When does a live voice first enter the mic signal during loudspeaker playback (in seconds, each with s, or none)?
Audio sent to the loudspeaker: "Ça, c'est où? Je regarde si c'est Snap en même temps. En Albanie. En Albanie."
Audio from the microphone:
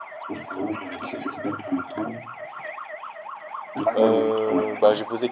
4.0 s